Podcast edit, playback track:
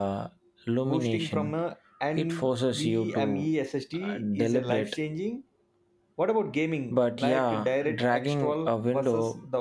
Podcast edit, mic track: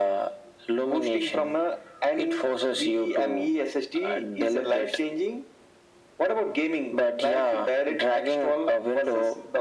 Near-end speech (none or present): none